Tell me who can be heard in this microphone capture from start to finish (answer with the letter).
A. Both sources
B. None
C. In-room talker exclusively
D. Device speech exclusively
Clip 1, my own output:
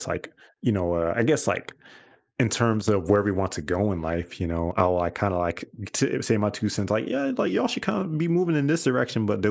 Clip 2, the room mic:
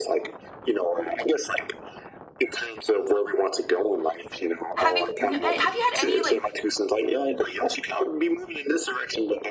A